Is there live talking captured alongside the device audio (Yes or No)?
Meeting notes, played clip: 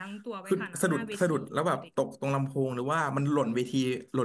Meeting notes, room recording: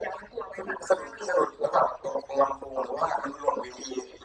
No